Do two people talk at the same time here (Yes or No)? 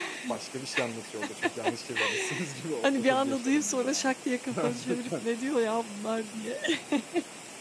Yes